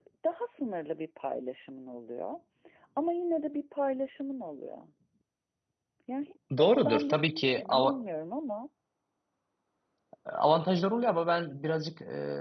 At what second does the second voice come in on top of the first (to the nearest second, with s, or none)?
7 s